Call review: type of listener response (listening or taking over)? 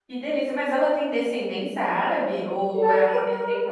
taking over